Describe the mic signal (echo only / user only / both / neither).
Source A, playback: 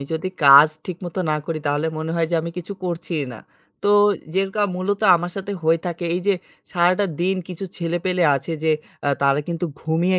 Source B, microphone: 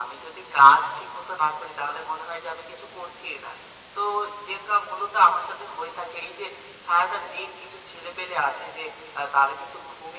echo only